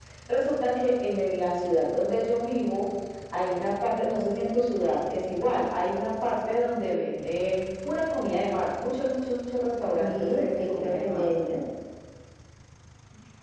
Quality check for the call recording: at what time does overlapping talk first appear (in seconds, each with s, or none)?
9.9 s